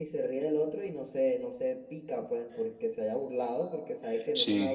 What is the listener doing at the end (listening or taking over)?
listening